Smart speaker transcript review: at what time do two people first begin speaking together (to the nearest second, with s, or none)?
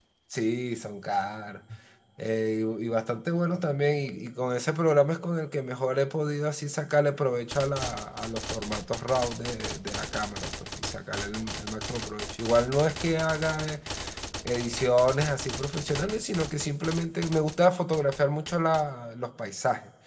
none